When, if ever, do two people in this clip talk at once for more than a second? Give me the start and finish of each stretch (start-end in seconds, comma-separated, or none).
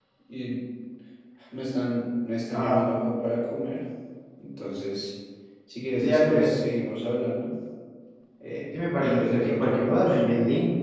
8.9-10.2